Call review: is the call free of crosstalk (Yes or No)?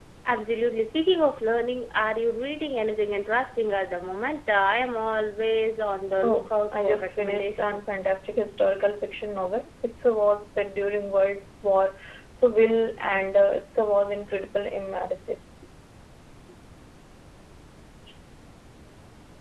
No